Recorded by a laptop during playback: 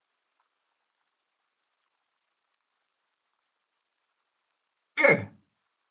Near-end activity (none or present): present